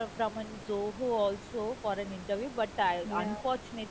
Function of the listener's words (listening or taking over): listening